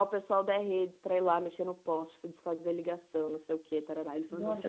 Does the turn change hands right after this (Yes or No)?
Yes